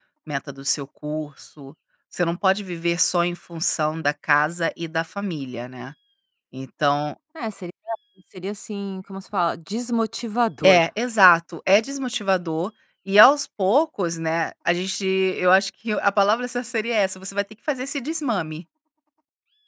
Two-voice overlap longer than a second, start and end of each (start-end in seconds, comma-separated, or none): none